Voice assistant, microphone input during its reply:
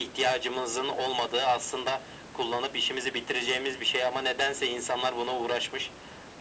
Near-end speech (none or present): none